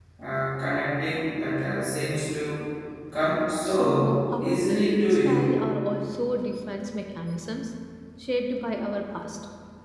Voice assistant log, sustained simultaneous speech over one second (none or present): present